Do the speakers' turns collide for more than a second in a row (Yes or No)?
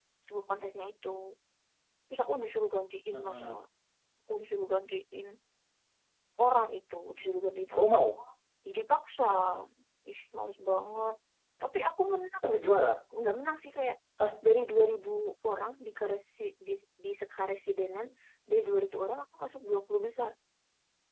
No